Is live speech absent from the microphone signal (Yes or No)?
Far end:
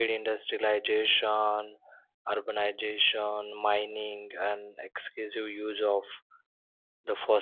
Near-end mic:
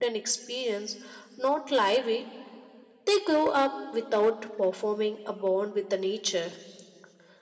No